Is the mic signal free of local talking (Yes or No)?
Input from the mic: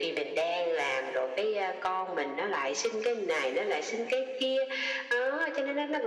Yes